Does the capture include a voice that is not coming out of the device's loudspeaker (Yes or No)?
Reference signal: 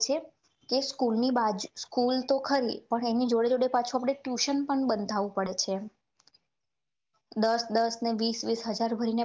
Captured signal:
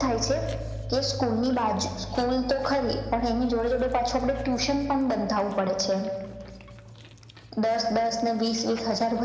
No